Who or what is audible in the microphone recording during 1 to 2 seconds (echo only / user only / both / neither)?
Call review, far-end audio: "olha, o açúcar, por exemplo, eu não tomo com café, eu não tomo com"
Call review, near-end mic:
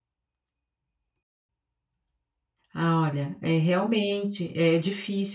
neither